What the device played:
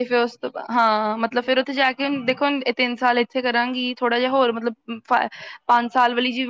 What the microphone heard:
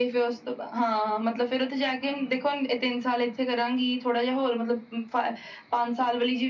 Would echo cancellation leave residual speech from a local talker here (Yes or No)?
No